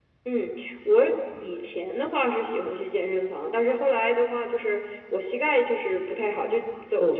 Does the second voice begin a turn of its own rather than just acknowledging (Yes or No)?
No